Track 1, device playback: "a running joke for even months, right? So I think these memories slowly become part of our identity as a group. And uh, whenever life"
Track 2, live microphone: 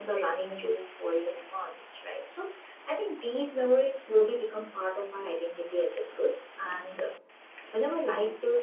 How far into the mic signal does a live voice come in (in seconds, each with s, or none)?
none